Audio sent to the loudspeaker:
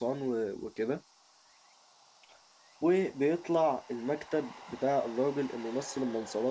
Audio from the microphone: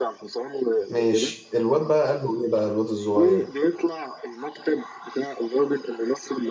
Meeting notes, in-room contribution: present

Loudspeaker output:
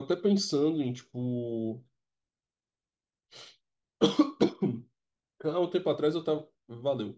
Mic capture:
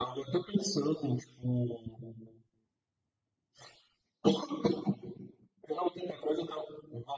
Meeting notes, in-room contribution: none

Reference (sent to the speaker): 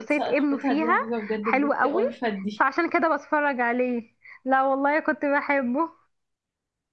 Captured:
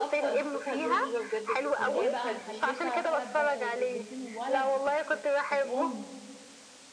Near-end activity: present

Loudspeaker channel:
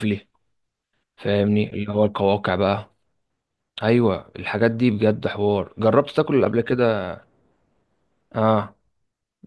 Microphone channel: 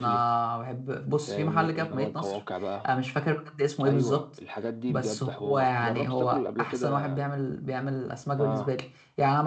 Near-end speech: present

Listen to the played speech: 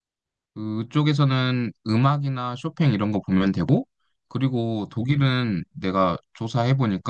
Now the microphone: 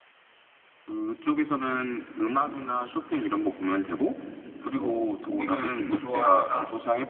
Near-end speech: present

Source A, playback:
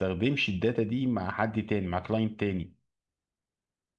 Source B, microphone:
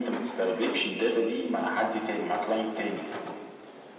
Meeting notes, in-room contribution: none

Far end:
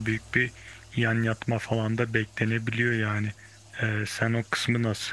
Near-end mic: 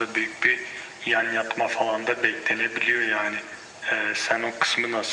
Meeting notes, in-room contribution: none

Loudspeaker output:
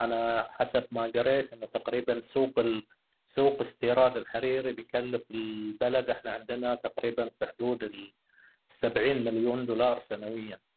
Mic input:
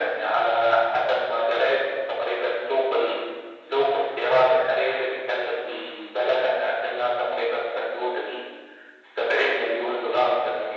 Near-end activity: none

